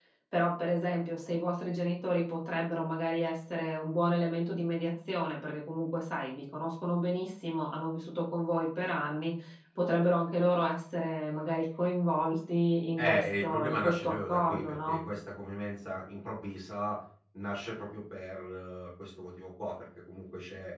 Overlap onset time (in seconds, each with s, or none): 13.0 s